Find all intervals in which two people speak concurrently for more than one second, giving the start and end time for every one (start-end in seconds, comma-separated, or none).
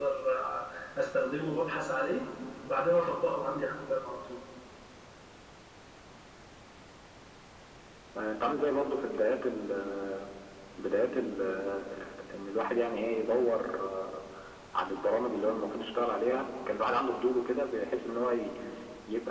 none